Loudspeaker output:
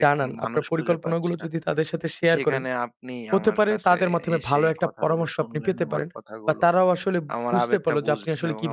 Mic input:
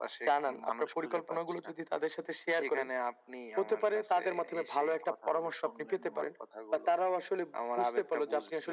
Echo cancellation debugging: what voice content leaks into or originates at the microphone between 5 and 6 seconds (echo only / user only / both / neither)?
echo only